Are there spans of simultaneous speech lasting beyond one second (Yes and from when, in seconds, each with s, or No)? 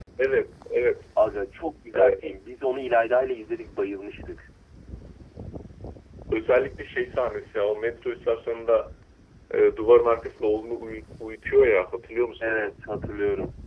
No